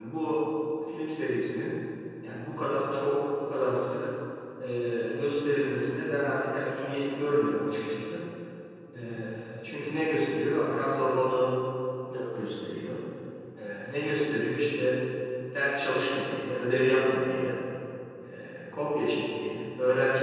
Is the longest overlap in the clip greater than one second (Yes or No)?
No